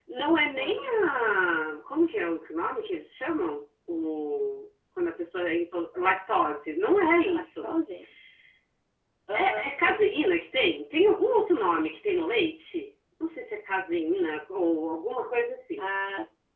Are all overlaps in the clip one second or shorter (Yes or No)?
Yes